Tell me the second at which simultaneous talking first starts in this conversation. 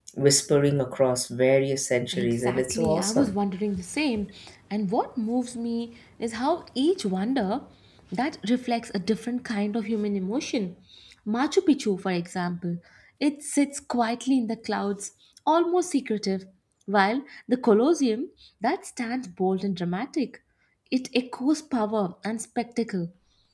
2.1 s

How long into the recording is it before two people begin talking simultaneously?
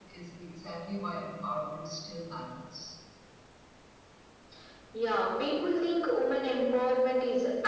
none

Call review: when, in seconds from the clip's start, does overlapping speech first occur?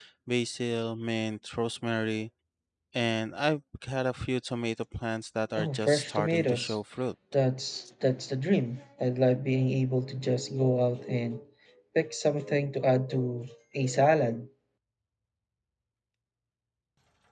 5.6 s

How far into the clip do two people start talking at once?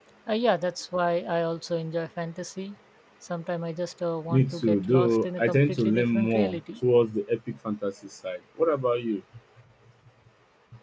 4.3 s

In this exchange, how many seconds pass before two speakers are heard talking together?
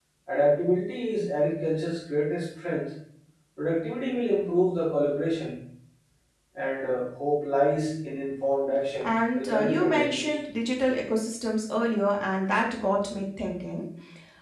9.0 s

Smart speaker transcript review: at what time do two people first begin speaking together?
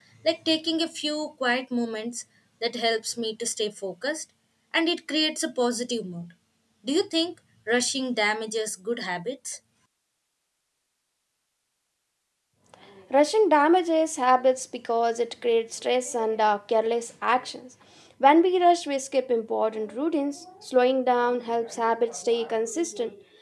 none

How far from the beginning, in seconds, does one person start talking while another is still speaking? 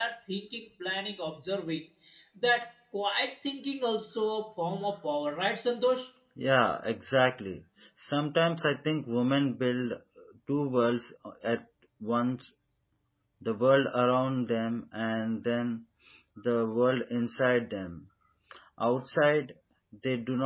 none

